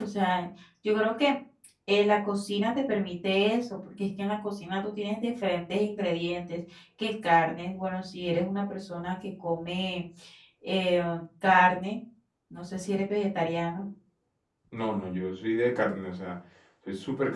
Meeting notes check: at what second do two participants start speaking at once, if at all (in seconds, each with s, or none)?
none